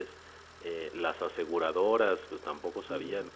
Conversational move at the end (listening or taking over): listening